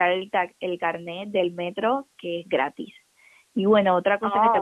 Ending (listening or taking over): listening